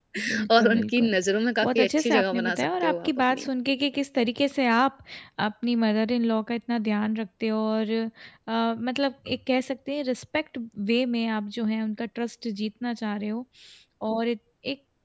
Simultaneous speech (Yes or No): Yes